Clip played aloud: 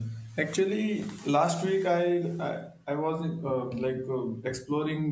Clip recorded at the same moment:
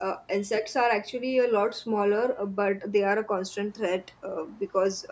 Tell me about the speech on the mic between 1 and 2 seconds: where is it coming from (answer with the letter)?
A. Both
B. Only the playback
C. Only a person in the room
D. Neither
C